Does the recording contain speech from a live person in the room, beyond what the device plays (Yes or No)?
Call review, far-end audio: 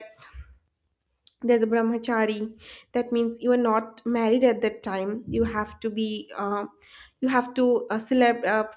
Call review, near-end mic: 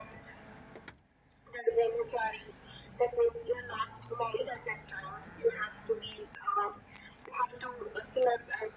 No